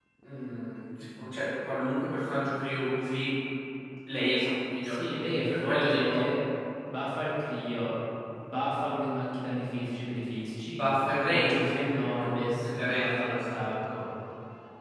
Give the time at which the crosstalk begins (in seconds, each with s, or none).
4.8 s